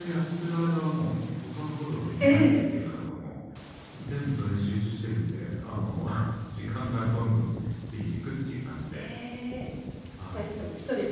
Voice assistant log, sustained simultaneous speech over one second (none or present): none